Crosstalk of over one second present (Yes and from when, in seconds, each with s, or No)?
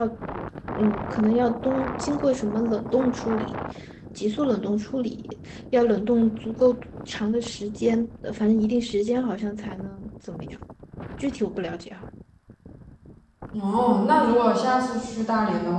No